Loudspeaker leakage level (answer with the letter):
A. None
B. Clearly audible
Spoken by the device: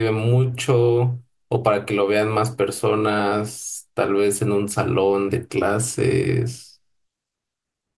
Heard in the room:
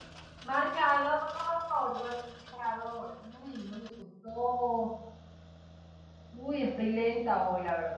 A